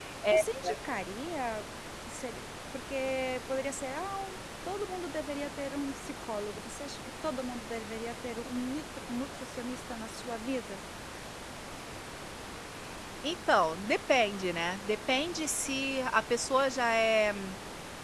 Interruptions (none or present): none